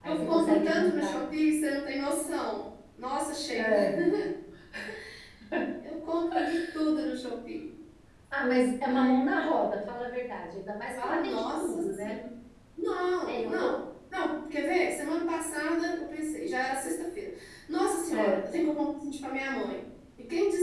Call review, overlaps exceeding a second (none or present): present